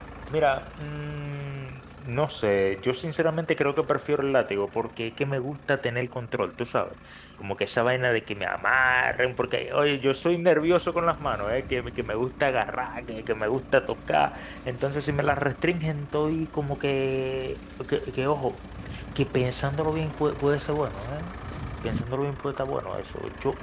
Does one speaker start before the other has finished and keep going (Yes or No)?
No